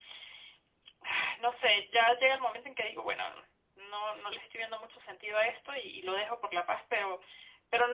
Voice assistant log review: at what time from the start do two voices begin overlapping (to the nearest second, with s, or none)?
none